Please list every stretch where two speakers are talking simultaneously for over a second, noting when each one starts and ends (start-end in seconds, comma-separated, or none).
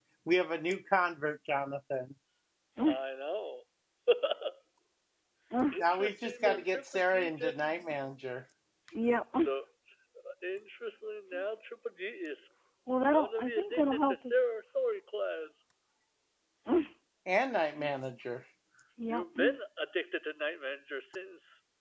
5.7-7.7, 13.1-14.3